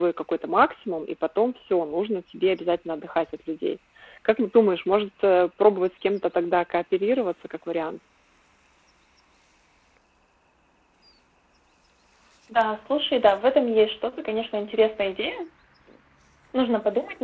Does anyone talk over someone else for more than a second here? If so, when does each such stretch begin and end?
none

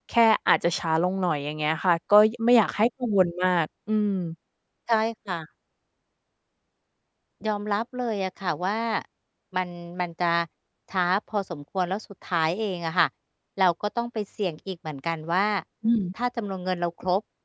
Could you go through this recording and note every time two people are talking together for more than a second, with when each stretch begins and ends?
none

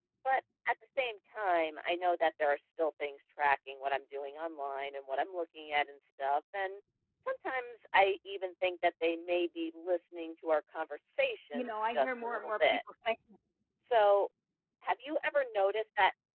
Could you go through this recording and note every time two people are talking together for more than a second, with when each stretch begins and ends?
11.5-12.8

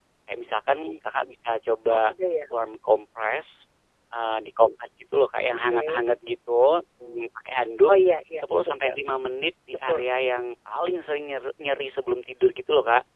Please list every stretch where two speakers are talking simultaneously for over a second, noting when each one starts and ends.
none

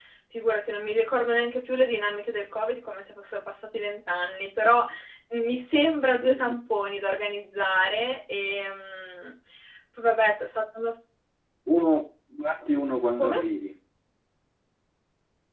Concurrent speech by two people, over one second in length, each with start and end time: none

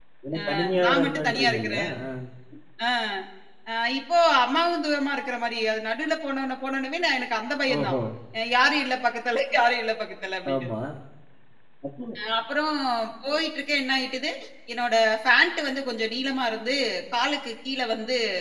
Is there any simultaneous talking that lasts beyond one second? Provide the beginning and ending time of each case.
0.6-1.8

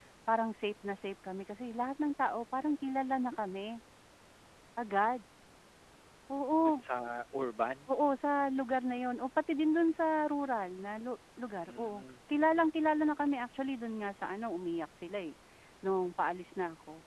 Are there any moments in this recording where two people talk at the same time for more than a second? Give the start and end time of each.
none

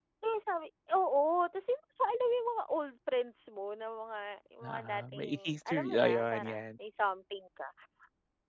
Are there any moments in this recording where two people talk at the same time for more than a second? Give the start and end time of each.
4.6-6.7

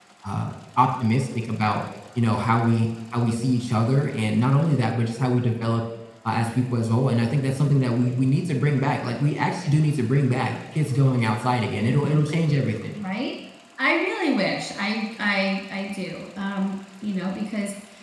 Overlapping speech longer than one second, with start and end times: none

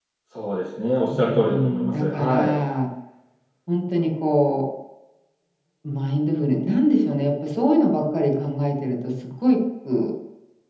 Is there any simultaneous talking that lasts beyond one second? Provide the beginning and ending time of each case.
1.1-2.6

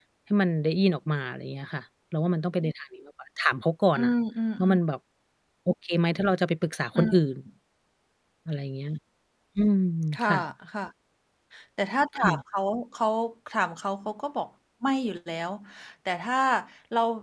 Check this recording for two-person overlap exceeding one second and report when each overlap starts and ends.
none

